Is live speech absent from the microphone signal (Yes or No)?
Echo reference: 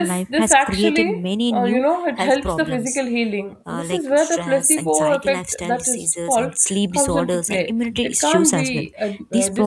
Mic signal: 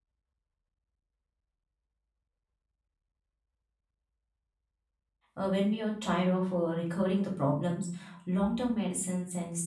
No